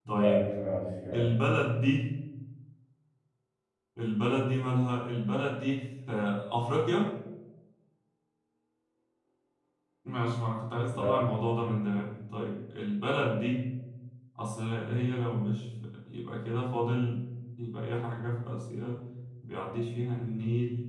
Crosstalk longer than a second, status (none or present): none